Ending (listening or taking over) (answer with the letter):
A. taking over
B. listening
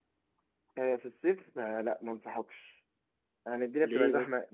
B